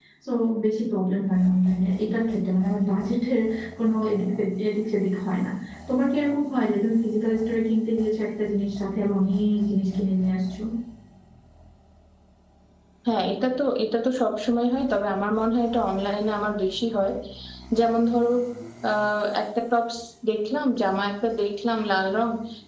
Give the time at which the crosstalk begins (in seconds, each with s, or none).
none